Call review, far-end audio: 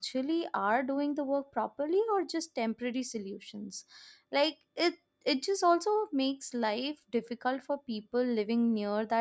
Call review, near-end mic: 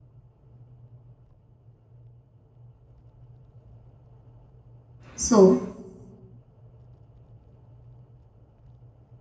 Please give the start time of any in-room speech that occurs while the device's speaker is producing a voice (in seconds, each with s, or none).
5.1 s